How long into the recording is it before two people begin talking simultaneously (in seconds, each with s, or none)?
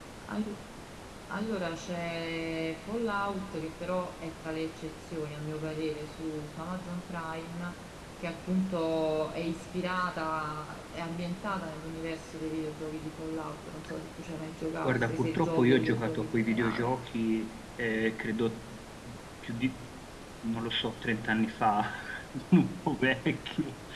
14.8 s